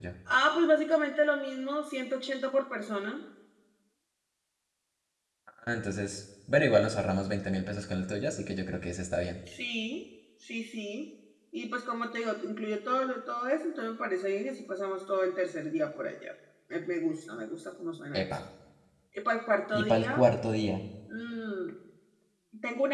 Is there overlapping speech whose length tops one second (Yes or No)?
No